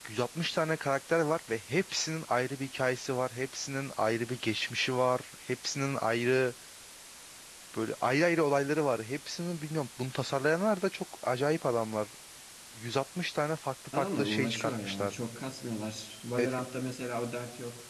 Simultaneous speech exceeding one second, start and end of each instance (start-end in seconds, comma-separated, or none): 13.9-15.1